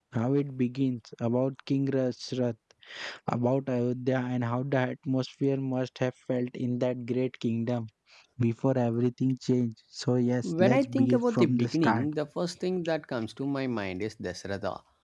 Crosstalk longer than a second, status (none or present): present